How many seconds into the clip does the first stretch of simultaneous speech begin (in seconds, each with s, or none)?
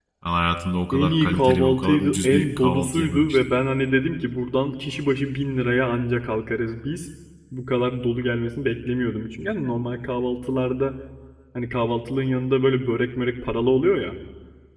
0.9 s